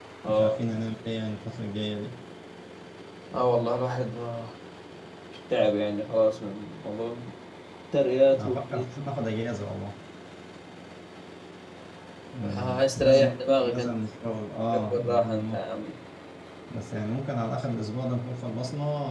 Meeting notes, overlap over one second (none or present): present